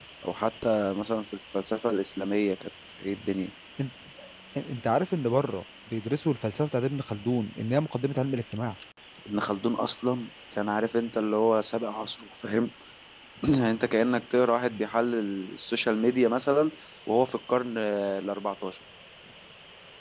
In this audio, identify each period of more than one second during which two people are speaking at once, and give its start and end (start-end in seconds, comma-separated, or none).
none